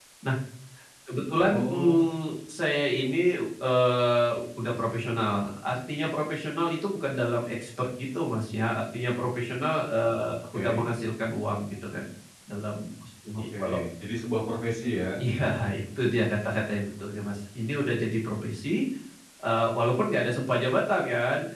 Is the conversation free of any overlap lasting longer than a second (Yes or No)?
Yes